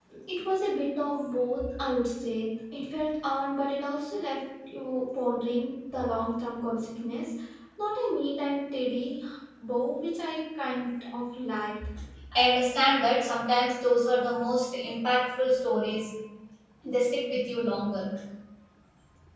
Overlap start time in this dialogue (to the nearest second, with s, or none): none